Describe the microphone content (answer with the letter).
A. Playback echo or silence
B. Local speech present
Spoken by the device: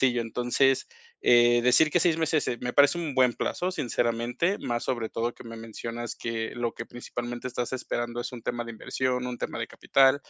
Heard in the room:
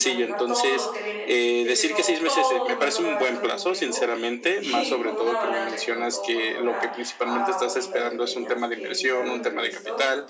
B